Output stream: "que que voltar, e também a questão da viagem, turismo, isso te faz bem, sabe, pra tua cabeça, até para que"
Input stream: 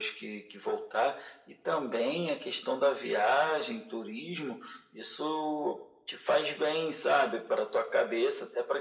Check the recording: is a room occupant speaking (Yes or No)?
No